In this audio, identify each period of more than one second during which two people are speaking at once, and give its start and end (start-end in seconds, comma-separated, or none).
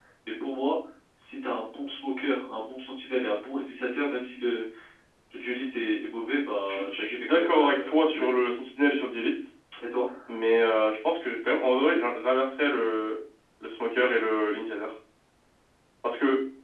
6.7-8.3